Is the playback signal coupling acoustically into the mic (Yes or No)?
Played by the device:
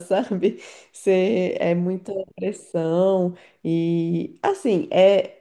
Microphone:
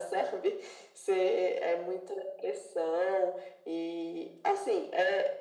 Yes